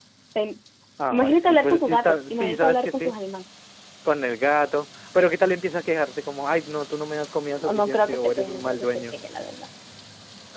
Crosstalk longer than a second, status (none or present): present